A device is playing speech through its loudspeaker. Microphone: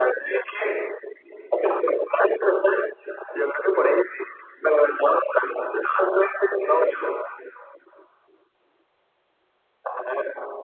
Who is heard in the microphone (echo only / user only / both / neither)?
echo only